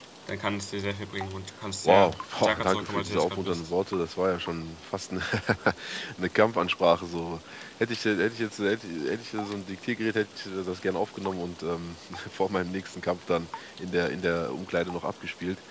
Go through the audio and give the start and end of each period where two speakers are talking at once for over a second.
1.8-3.7

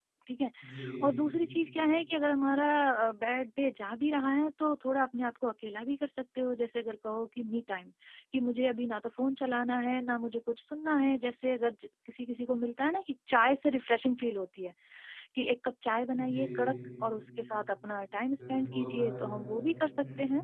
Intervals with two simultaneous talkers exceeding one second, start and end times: 18.4-19.6

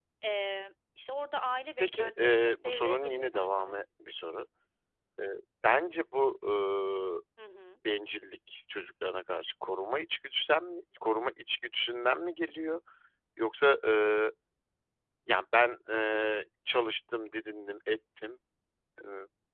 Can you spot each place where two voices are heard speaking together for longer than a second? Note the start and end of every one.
1.8-3.7

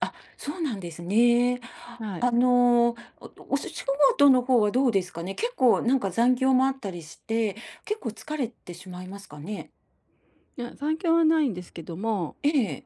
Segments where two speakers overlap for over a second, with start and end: none

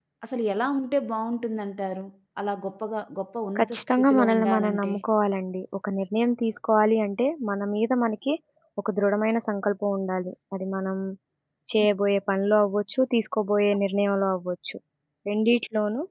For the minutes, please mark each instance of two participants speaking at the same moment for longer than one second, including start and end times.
3.6-4.9

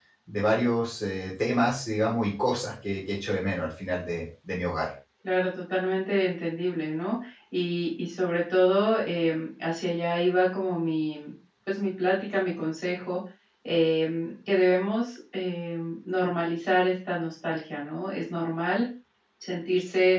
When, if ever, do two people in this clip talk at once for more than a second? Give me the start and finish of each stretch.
none

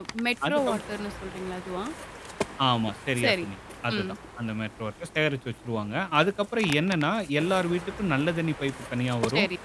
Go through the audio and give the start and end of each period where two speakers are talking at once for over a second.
none

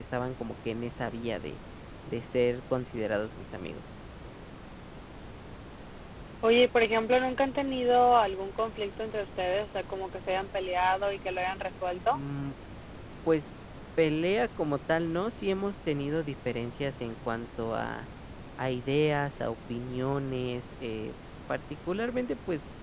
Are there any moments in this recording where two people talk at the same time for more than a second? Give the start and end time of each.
none

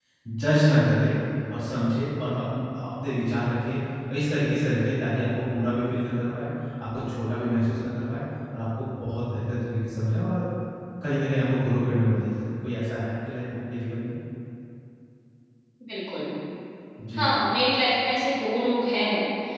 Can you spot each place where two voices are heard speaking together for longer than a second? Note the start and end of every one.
none

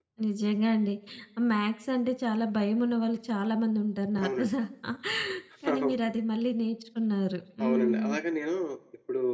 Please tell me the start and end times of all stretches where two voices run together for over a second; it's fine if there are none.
none

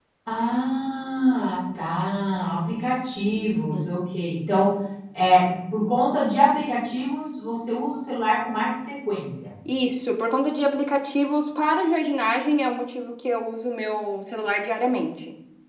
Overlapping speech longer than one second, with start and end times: none

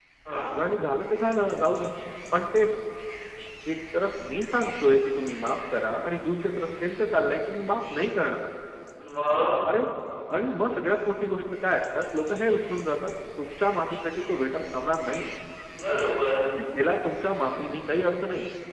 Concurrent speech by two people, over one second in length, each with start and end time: none

